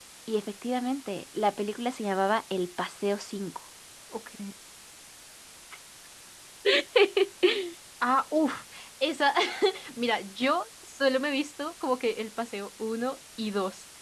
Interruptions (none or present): none